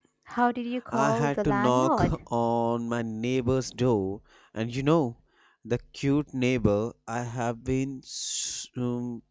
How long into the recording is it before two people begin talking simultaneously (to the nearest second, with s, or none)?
1 s